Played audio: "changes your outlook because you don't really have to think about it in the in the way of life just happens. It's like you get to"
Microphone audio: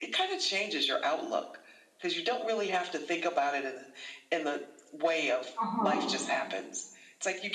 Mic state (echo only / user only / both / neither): both